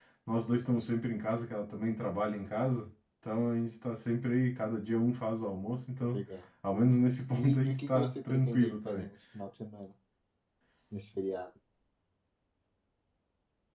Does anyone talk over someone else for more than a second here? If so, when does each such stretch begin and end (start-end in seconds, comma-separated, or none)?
7.4-9.1